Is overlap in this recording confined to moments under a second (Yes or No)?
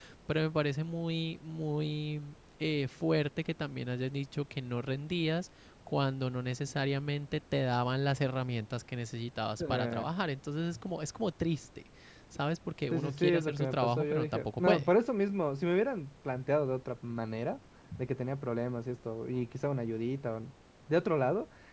No